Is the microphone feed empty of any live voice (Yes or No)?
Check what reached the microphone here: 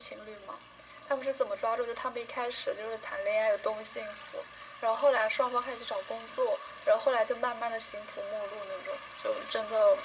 Yes